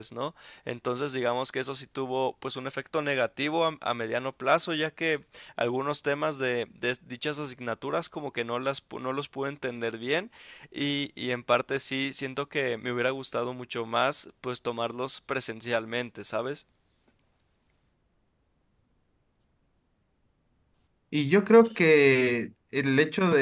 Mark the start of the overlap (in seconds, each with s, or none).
none